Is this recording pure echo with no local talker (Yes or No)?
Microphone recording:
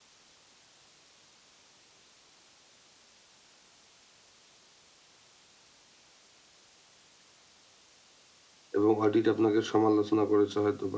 No